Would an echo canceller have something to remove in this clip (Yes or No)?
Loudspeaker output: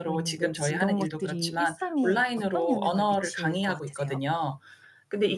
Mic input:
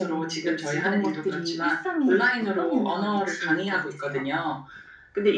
Yes